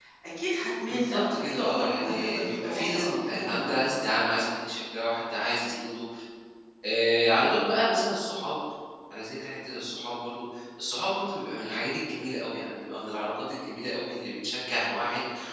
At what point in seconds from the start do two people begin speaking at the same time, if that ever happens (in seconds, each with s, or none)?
0.9 s